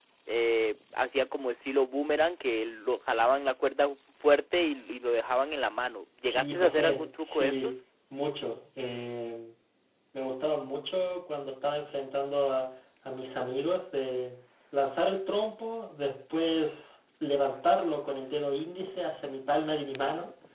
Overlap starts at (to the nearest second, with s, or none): 6 s